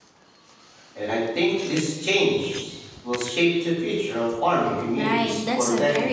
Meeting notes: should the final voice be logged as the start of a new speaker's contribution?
Yes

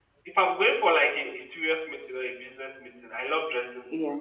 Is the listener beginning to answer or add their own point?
No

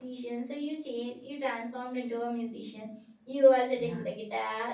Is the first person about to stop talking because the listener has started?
No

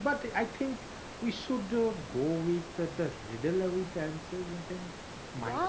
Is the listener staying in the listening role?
No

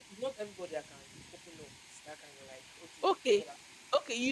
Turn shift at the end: Yes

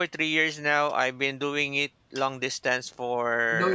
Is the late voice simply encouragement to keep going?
Yes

